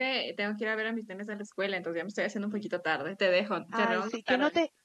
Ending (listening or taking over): taking over